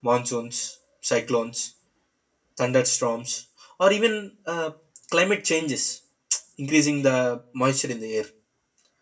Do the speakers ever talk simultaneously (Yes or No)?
No